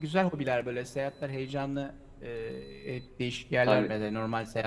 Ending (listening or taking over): listening